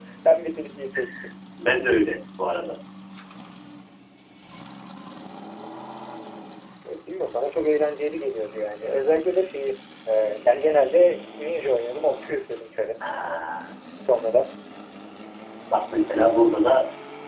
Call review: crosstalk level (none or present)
none